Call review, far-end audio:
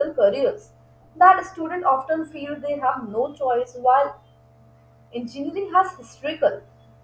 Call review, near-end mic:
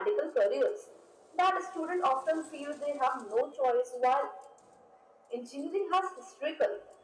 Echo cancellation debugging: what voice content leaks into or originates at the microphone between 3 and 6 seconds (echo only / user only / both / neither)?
echo only